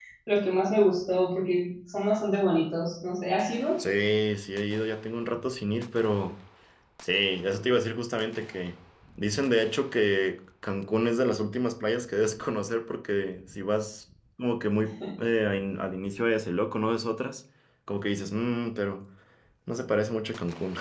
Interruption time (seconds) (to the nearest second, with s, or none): none